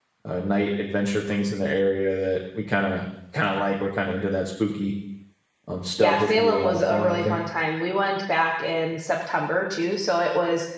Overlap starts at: 6.0 s

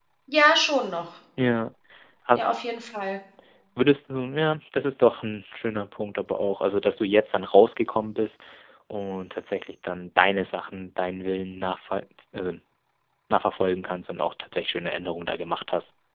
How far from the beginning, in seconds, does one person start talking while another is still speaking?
none

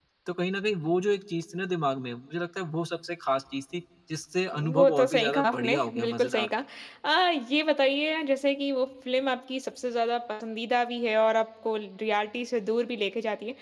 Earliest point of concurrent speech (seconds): 4.5 s

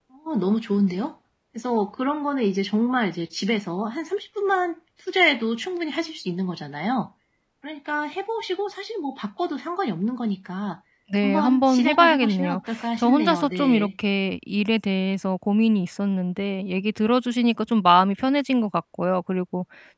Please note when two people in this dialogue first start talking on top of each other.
11.2 s

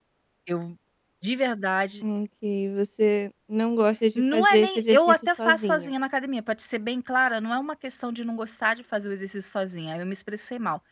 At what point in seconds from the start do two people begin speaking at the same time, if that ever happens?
4.2 s

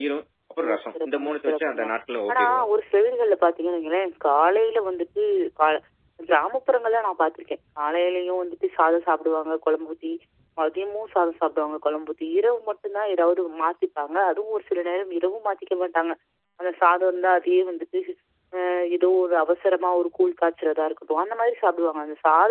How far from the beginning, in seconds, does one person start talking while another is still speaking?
0.6 s

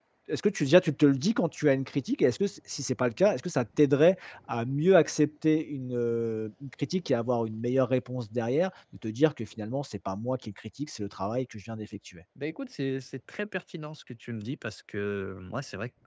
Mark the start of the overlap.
none

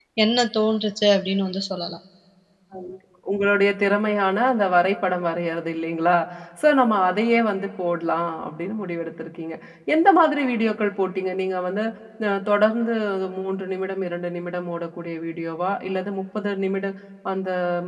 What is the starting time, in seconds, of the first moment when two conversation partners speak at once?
none

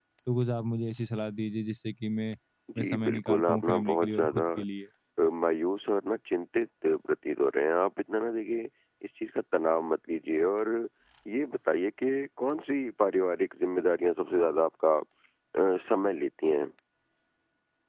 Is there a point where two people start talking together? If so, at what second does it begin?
2.8 s

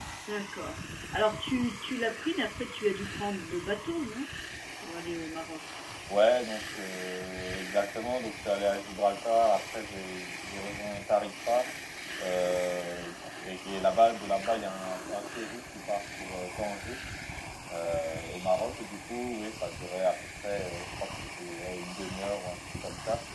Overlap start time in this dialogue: none

